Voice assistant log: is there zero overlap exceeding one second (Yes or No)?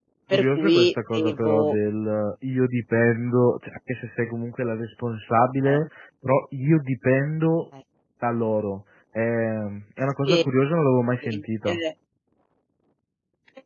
No